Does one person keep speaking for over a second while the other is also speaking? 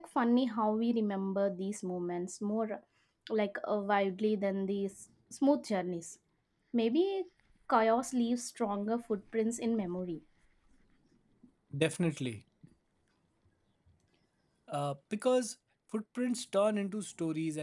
No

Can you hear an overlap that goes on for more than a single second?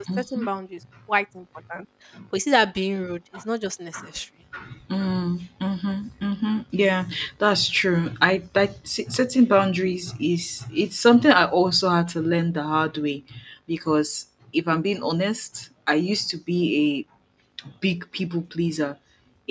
No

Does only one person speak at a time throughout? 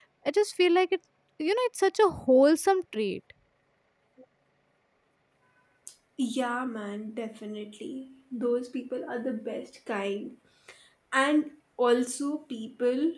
Yes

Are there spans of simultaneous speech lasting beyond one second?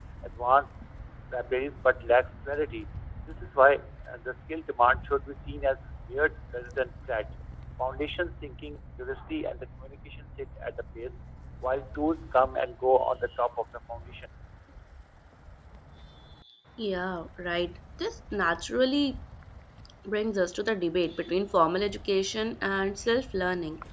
No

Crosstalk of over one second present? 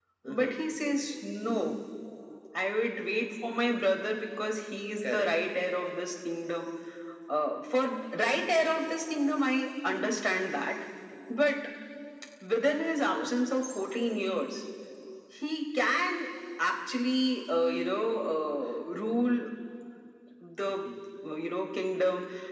No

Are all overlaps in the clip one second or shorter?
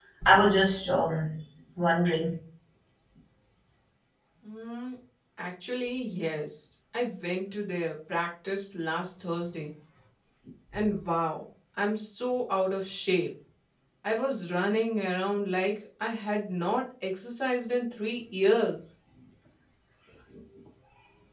Yes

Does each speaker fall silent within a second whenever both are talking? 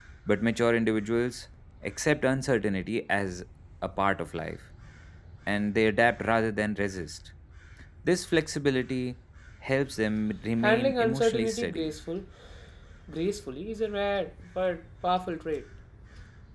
No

